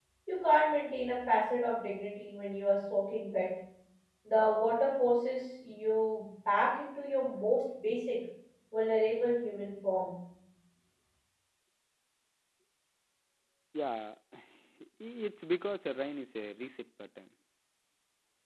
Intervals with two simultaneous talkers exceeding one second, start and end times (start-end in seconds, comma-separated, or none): none